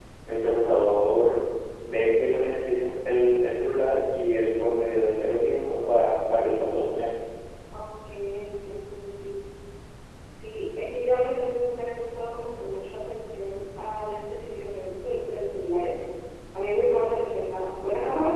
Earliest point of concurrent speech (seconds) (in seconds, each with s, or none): none